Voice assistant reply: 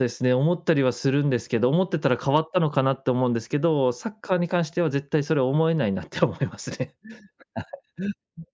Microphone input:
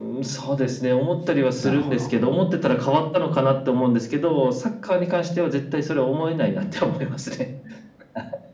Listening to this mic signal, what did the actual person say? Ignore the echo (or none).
なるほど。